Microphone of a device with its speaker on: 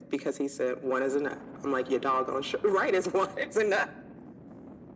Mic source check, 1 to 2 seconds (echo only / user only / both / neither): echo only